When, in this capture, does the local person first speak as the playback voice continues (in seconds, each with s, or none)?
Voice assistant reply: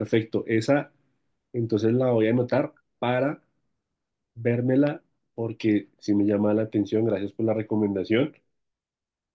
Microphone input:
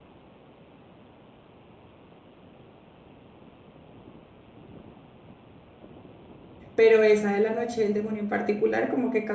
6.7 s